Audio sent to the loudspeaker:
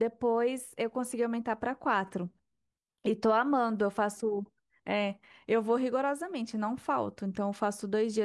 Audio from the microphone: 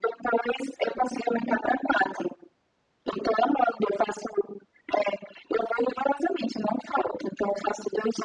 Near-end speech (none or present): none